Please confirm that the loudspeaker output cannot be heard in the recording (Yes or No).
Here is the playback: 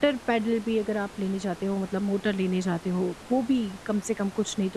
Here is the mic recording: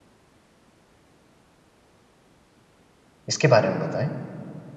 Yes